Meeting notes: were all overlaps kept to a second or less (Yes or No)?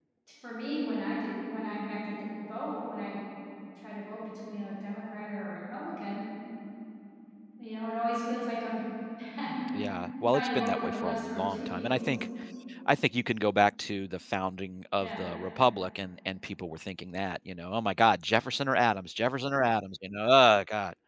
No